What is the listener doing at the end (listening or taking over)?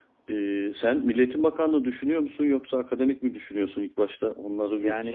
taking over